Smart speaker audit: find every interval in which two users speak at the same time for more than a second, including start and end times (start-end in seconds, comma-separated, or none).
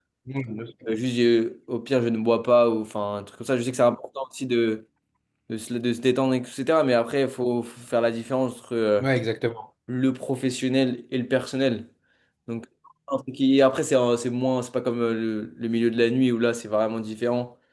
none